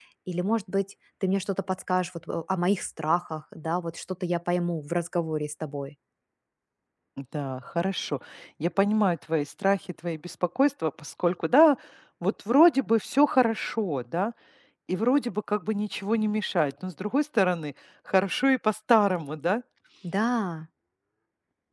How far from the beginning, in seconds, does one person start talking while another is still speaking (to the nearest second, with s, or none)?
none